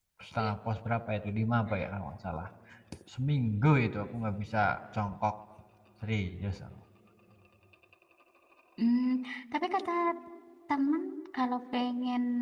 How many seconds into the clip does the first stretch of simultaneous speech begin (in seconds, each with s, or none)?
none